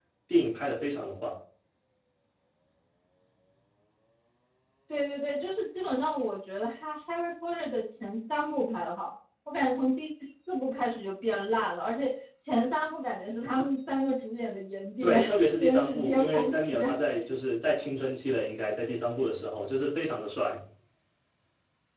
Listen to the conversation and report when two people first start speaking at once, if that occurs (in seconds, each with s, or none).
15.0 s